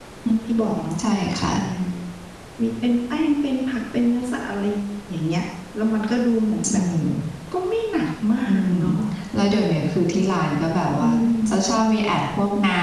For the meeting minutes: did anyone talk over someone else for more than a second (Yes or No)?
No